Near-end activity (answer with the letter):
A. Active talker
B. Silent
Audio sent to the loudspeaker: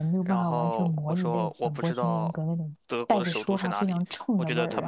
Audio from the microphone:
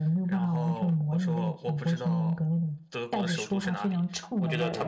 B